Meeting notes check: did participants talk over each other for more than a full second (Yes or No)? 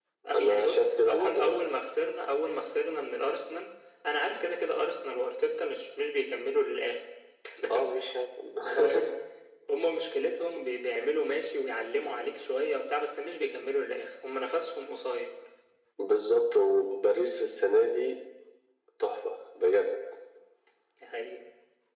Yes